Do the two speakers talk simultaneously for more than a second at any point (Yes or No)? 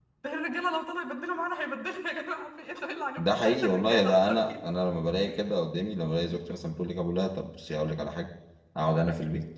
Yes